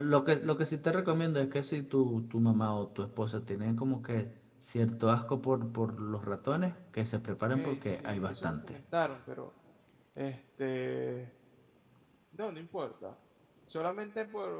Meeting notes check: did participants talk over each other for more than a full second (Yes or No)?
Yes